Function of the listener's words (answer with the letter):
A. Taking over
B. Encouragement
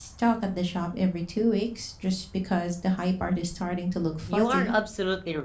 A